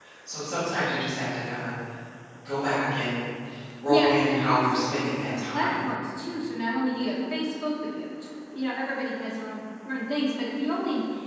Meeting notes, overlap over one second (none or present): present